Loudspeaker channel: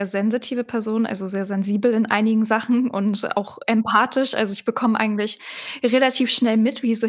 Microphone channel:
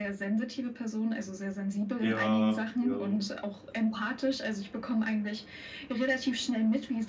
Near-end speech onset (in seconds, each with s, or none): 2.0 s